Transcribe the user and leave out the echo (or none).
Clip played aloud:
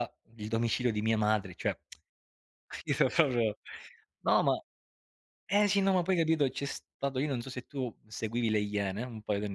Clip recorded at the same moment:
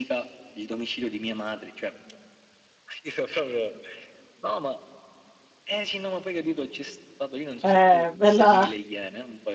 Eh, bella